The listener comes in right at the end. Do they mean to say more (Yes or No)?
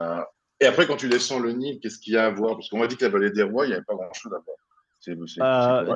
Yes